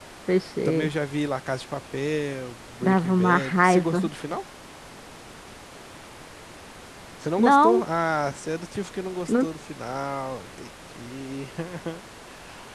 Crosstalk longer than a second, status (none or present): present